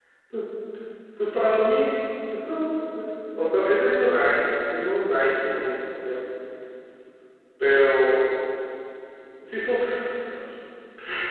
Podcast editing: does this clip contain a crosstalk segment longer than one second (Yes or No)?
No